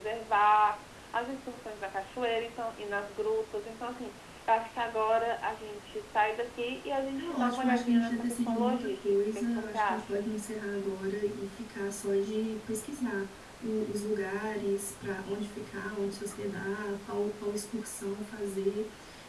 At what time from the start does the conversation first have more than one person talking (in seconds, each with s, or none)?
7.2 s